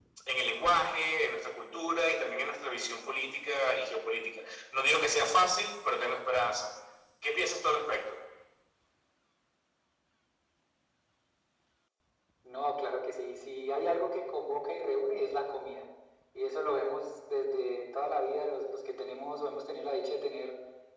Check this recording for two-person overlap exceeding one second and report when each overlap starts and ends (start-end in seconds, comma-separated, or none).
none